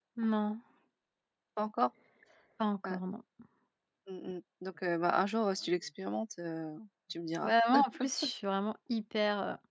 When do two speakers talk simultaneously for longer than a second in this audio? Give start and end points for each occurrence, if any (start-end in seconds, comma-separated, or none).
none